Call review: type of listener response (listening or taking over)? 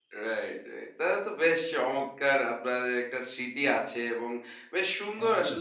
listening